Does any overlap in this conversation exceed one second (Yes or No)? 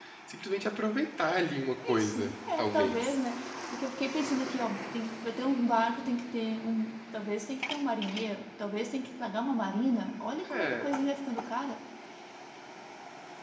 Yes